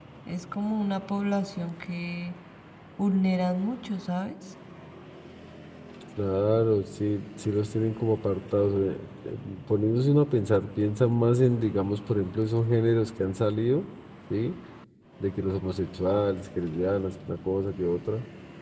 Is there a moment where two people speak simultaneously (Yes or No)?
No